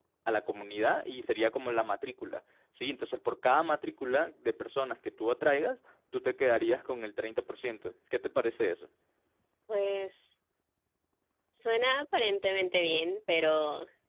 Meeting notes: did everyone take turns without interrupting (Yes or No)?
Yes